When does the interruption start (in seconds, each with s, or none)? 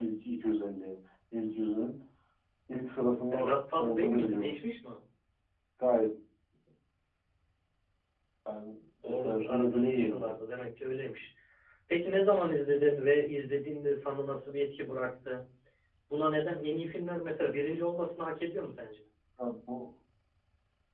3.3 s